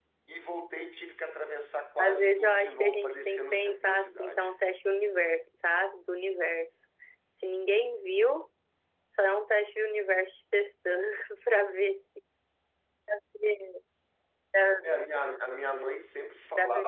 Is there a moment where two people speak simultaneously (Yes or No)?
Yes